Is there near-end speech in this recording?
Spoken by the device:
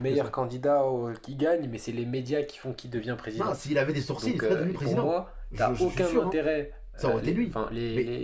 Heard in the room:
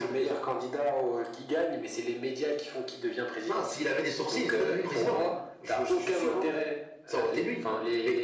No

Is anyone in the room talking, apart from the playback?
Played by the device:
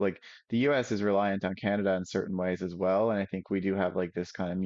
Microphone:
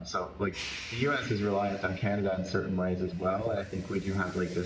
No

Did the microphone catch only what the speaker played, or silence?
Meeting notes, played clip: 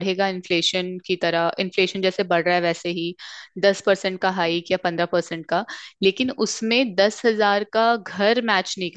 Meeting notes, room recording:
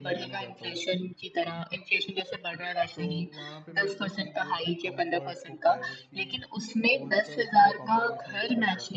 No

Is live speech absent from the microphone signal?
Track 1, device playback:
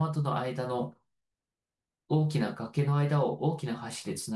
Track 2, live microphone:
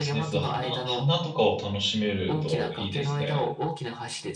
No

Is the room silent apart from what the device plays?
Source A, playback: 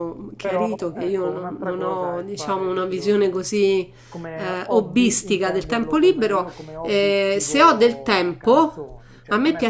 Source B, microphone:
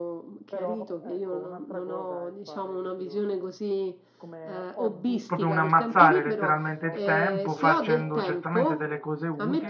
No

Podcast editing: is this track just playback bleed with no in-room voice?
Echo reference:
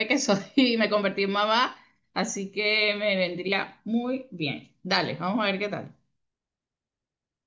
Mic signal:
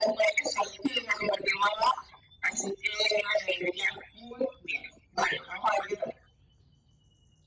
Yes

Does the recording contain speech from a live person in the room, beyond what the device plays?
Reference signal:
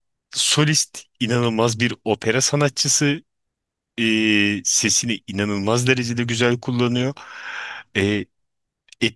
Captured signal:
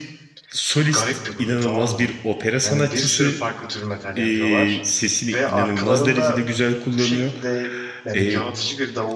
Yes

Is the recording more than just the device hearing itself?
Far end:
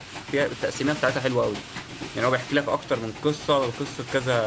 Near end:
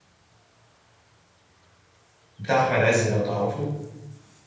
Yes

